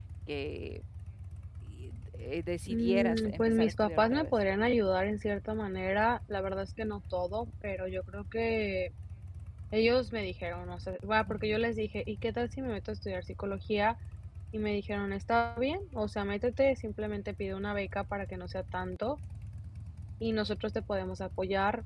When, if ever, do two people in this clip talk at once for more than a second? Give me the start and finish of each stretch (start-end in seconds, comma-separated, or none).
2.7-4.3